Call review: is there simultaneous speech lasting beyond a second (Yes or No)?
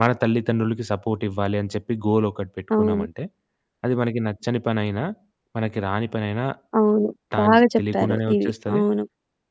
Yes